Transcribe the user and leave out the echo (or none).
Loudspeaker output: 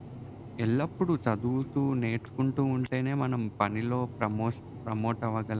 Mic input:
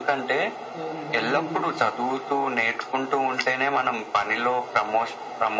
అవునండి. అవును. అవును.